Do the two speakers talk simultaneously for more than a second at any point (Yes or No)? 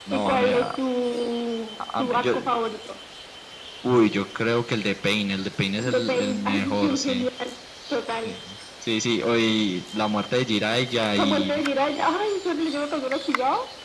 Yes